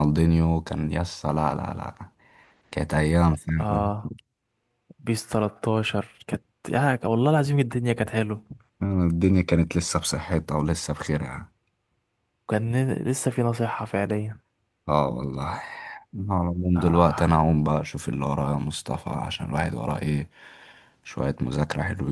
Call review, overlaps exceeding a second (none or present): none